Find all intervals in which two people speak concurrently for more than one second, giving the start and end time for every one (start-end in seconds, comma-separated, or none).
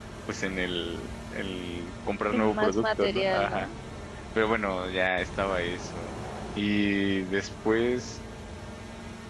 2.3-3.7